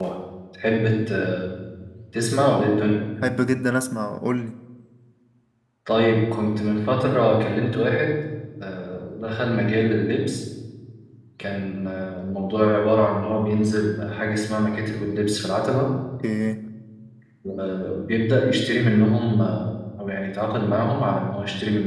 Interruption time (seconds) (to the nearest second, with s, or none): none